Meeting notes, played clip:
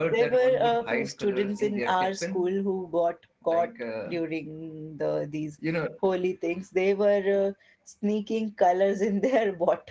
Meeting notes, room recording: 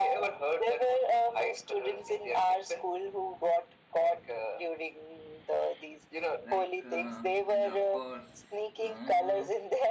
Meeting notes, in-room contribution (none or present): present